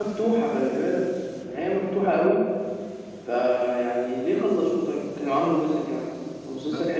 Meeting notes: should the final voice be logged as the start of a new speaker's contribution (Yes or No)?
No